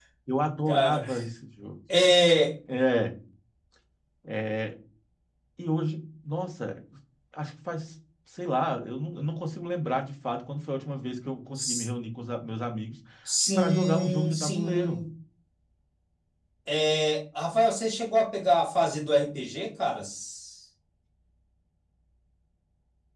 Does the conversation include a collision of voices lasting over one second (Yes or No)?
Yes